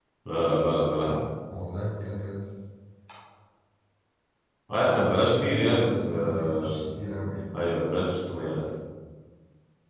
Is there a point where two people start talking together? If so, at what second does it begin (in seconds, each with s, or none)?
5.3 s